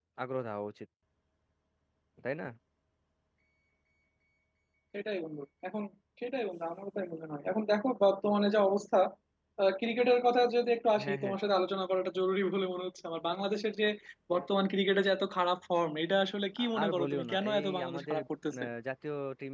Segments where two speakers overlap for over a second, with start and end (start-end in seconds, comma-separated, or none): 16.6-18.2